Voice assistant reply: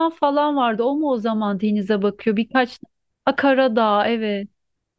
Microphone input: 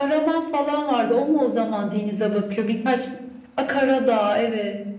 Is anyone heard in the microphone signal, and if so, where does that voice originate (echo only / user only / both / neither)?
echo only